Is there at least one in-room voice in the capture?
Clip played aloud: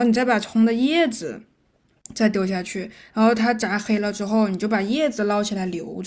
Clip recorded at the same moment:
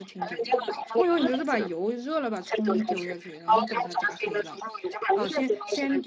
Yes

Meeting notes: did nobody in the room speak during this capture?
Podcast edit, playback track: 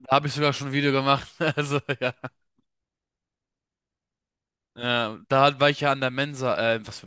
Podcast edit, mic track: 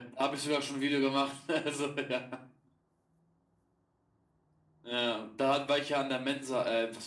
Yes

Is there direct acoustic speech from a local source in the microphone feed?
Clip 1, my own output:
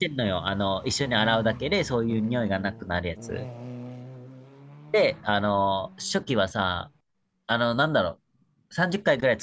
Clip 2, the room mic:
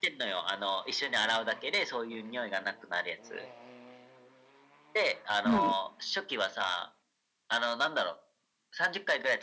Yes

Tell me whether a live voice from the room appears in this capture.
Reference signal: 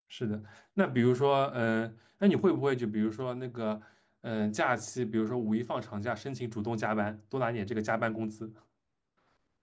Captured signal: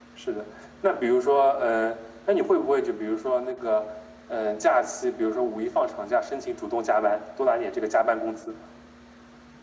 No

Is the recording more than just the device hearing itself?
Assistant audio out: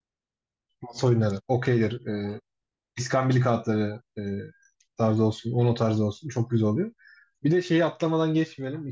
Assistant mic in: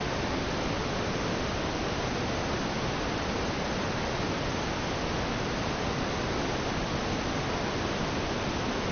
No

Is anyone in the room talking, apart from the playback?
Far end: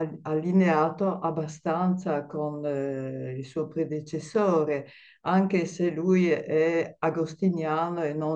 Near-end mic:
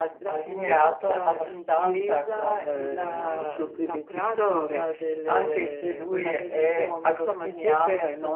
Yes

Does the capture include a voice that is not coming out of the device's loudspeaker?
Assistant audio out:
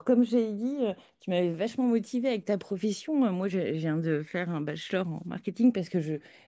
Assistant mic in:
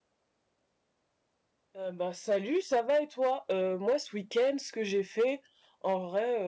Yes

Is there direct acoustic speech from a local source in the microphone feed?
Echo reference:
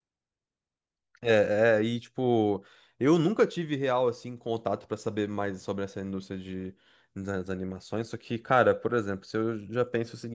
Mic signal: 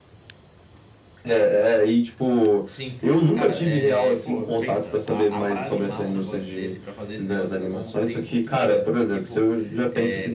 Yes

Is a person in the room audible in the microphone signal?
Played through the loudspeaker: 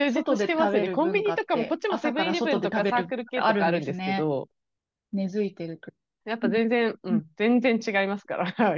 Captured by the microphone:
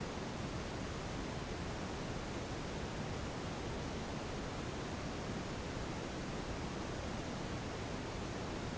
No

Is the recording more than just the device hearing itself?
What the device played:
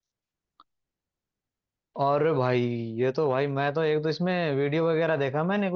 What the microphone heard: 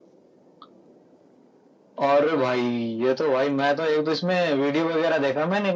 No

